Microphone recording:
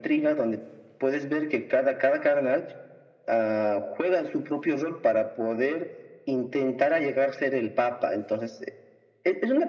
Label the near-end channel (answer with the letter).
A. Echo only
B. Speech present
A